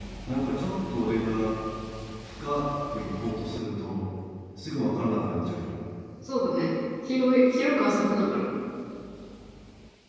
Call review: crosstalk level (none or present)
none